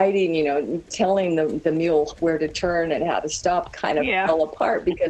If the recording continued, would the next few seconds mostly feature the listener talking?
No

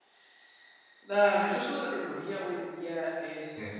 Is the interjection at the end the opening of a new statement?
No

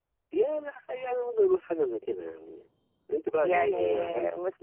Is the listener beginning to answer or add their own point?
Yes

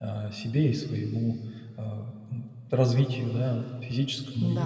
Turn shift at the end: No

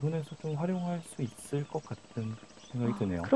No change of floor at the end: No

